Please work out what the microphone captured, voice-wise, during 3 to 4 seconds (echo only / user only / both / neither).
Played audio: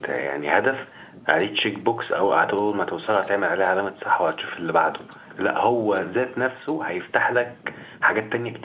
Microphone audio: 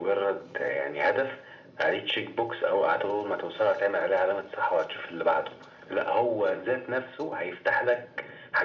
echo only